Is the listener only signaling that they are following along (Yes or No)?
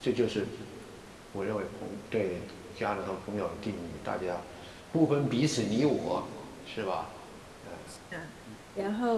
No